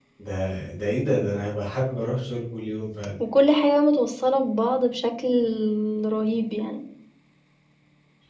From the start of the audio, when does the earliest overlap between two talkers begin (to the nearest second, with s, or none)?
none